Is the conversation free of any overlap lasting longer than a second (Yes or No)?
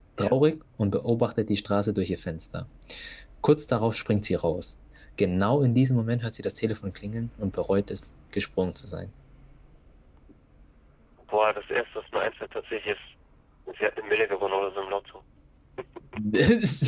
Yes